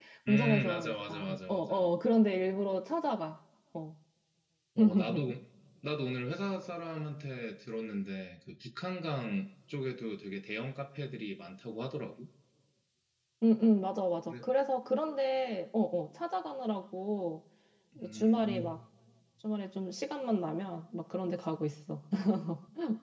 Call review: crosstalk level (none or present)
present